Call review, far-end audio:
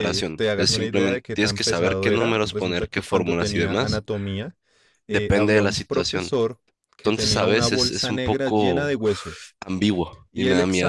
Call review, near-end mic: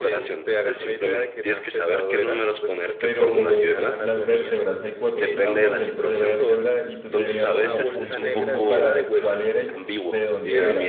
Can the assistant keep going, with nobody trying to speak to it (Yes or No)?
No